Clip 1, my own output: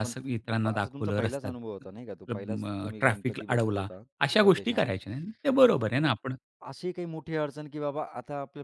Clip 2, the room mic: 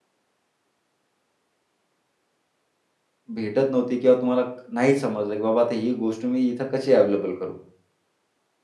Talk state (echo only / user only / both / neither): user only